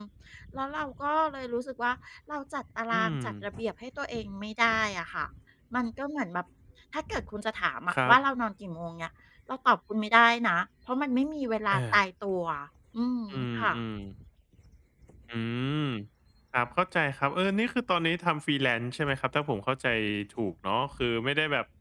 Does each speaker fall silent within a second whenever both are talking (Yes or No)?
Yes